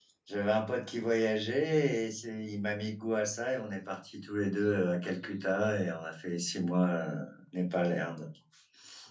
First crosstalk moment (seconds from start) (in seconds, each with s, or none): none